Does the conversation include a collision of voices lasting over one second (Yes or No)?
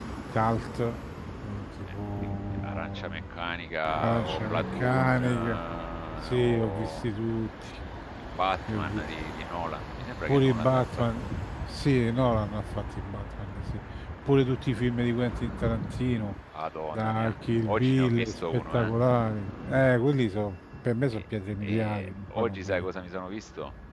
Yes